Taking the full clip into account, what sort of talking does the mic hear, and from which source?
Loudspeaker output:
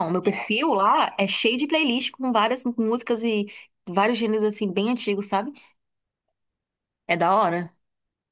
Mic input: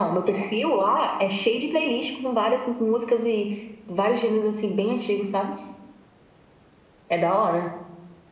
echo only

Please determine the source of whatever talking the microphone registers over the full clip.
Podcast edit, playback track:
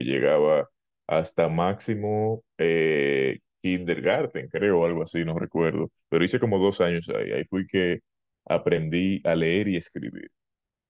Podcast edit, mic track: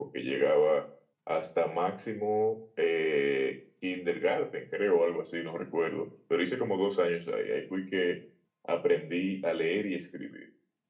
echo only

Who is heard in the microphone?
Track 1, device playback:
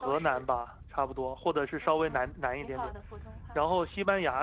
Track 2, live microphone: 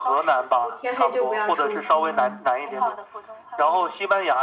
both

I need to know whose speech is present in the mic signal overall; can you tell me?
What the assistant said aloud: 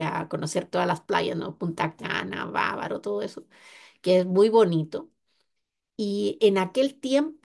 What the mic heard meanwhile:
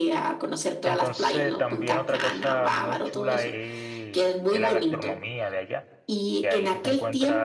both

